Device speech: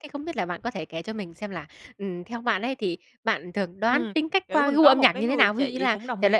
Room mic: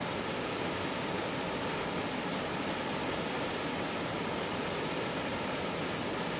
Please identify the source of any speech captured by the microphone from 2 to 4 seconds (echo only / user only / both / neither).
neither